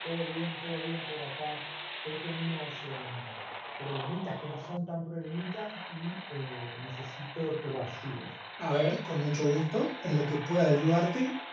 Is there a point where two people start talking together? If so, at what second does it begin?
none

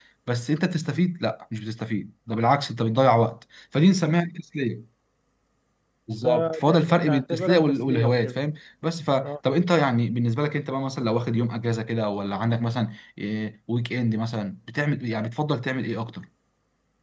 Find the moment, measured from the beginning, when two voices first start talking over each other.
6.2 s

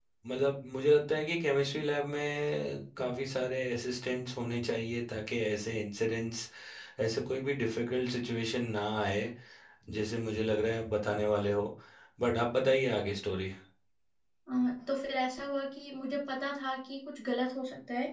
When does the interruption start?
none

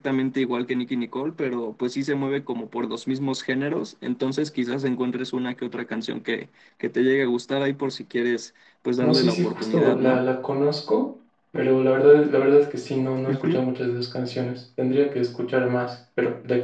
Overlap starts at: 9.0 s

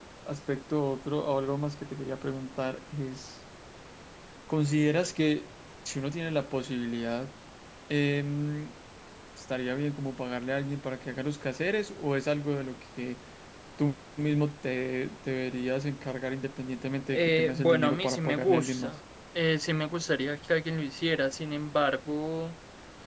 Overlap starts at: 17.1 s

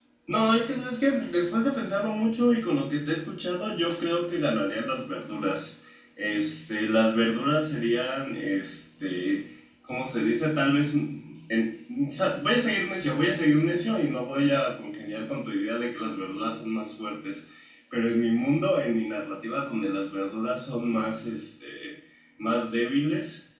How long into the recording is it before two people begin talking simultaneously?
none

